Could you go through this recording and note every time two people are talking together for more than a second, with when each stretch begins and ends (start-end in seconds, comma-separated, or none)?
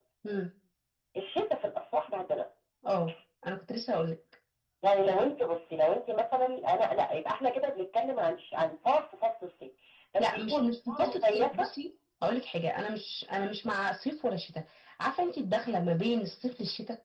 10.2-11.6